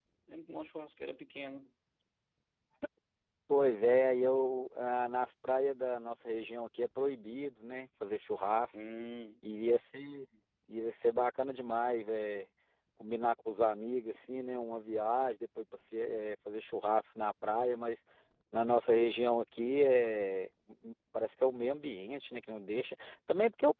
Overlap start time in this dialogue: none

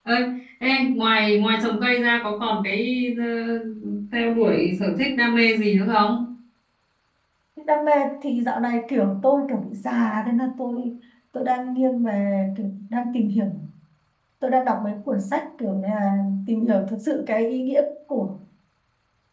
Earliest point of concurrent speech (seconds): none

